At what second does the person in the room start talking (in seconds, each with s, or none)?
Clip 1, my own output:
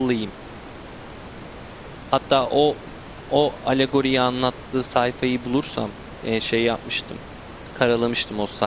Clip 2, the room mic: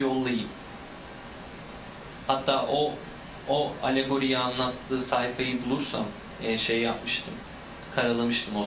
none